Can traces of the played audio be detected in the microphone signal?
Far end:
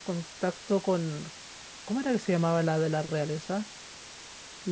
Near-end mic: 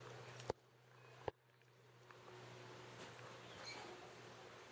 No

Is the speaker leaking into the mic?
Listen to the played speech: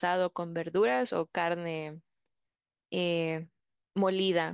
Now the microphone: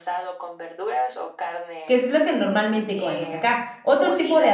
Yes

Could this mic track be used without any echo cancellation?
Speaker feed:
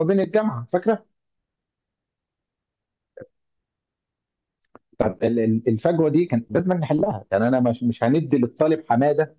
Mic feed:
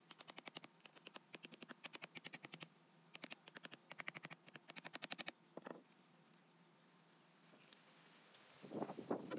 Yes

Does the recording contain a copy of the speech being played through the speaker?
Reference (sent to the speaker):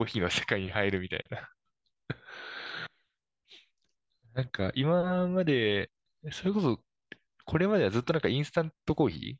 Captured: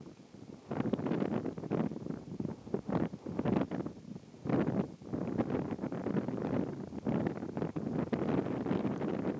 No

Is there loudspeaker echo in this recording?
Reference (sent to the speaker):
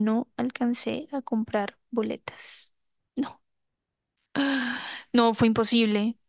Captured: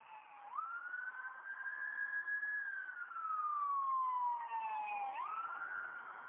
No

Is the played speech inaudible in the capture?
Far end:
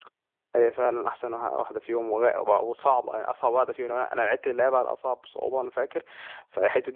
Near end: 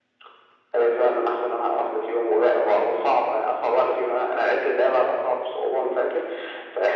No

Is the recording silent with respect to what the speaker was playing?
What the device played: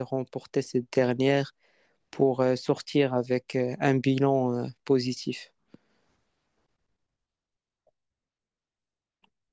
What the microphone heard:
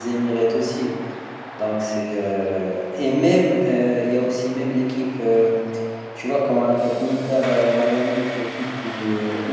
Yes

